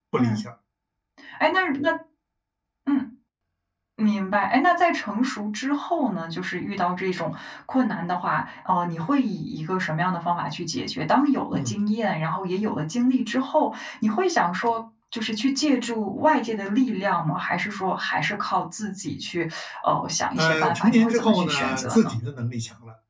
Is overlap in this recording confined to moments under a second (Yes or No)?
No